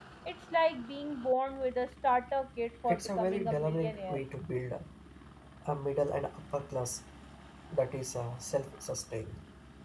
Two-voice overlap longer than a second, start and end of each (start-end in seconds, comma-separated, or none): 2.9-4.2